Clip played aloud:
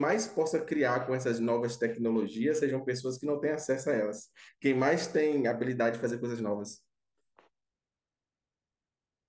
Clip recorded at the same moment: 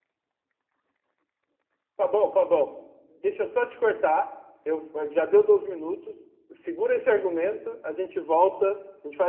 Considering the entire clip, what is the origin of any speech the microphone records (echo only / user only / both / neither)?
user only